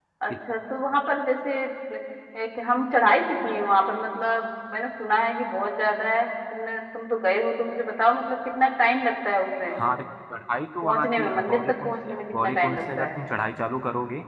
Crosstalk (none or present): present